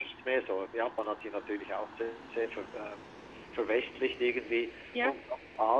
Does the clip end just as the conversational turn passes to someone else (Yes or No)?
No